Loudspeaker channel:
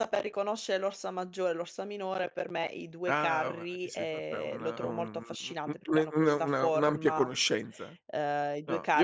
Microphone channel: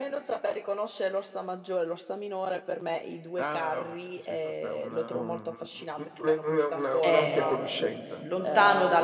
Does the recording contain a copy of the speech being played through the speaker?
Yes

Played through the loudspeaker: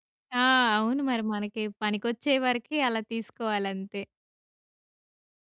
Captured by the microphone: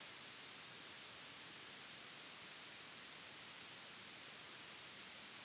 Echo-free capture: Yes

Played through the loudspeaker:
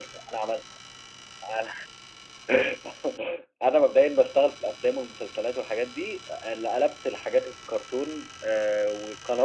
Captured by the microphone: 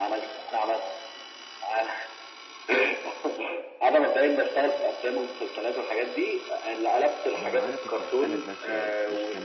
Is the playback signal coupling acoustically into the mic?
Yes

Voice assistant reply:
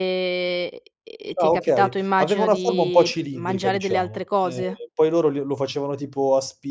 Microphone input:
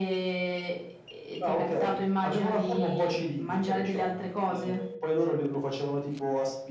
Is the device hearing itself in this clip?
Yes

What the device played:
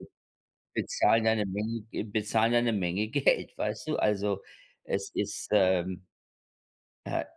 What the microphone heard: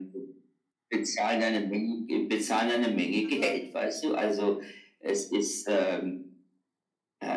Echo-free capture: No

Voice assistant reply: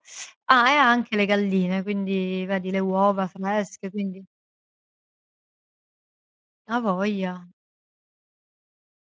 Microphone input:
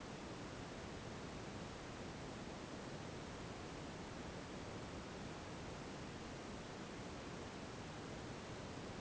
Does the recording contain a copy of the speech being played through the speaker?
No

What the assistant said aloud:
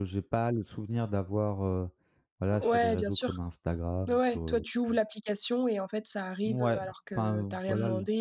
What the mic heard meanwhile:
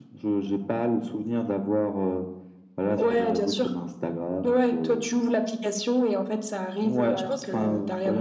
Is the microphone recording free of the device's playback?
No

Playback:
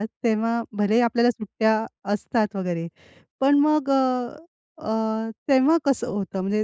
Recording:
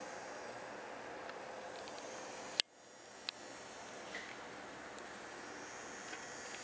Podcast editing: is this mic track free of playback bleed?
Yes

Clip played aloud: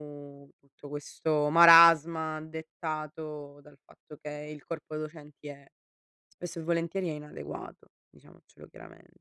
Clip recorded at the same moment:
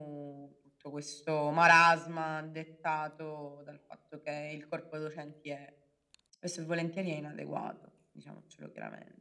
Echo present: Yes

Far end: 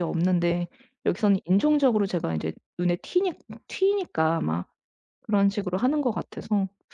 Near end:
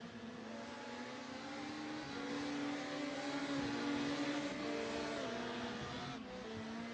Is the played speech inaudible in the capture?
Yes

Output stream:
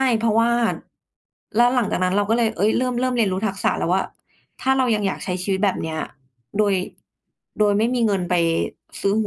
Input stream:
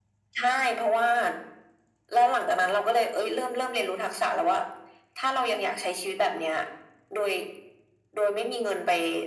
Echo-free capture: No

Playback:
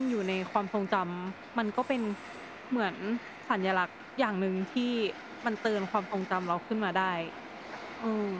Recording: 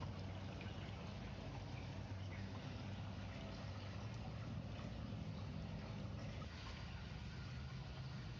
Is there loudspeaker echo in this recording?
No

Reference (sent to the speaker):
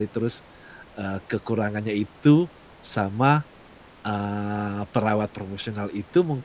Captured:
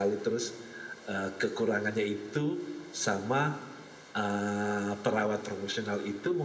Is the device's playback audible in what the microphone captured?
Yes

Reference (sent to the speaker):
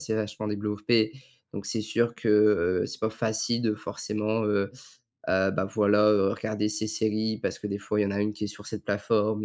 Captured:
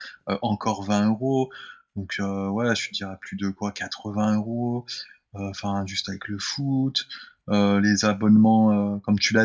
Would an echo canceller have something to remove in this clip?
No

